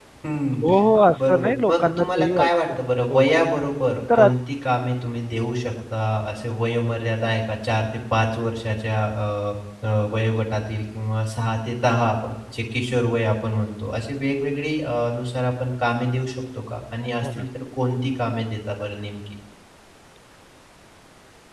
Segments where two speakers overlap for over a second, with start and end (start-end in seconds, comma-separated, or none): 1.2-2.5